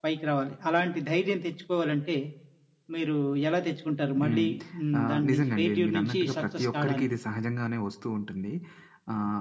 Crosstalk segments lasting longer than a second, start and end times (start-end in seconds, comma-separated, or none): 5.0-7.2